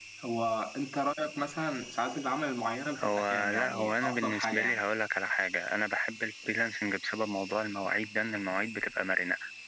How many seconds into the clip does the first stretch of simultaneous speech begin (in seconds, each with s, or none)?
3.0 s